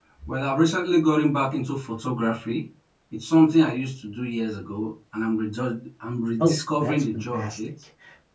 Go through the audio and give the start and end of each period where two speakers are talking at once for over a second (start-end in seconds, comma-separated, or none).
6.4-7.6